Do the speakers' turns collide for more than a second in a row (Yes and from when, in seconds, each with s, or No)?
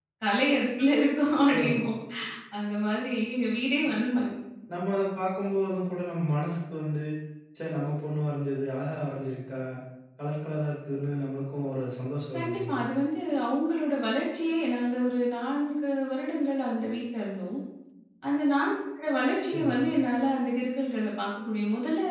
No